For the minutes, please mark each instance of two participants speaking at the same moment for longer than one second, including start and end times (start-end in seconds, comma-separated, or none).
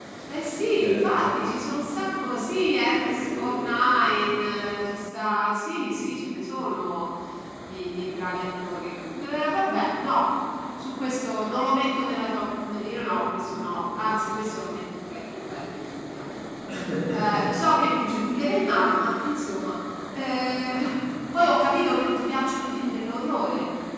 3.0-4.3